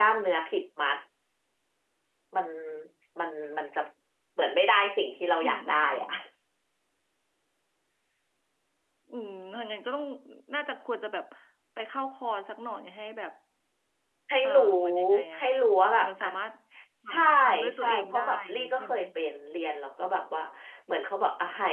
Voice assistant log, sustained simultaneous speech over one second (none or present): present